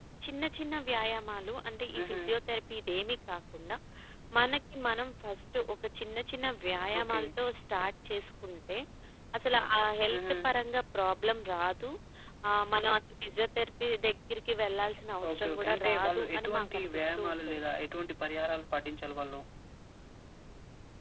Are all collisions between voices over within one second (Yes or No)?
No